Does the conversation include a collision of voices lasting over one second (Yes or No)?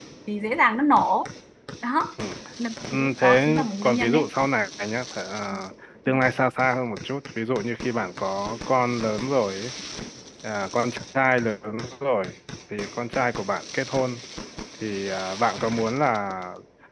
Yes